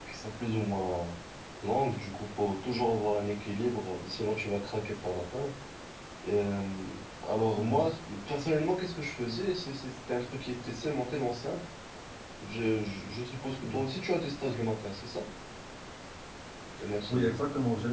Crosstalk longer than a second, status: none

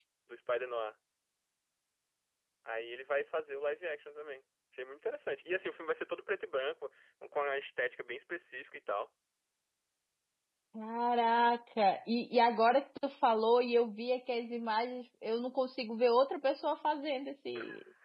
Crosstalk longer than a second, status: none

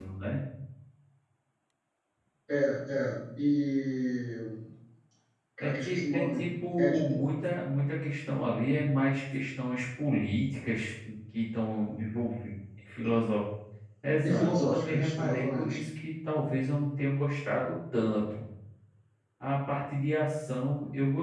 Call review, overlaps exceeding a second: present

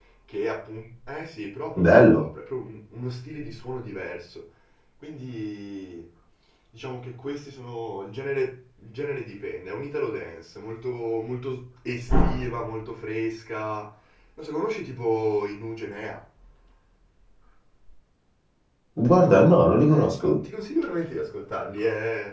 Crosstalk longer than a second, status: present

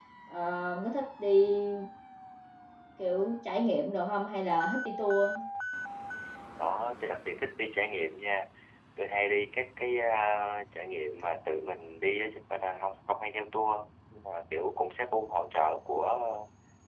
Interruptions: none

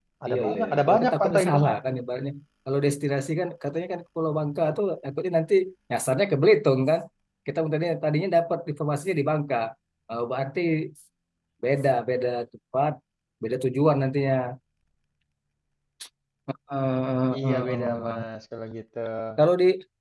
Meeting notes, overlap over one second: present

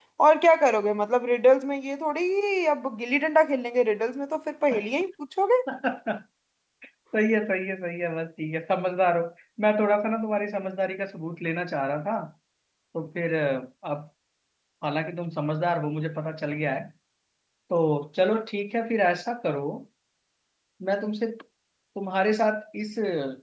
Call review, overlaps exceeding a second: none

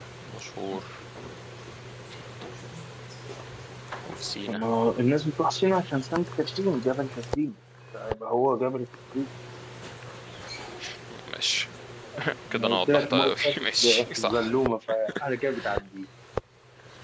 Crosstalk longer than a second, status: present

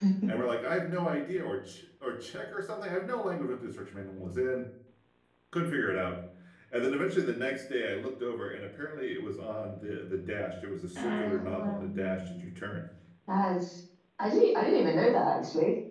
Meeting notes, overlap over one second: present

